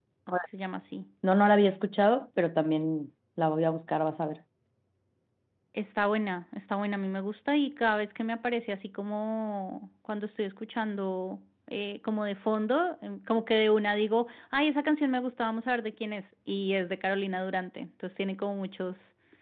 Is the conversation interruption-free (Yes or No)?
Yes